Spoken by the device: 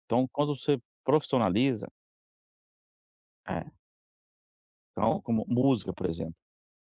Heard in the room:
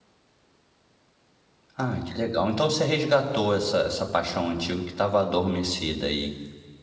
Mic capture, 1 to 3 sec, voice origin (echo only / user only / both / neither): user only